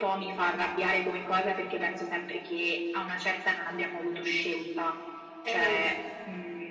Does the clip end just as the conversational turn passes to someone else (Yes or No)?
No